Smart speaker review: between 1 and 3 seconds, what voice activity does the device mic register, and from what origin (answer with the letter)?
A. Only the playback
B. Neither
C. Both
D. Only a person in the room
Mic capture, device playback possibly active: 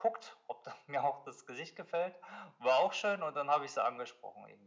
A